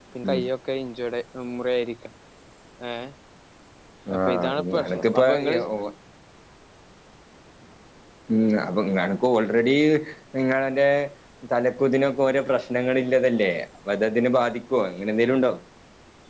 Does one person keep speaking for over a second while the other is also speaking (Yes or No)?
Yes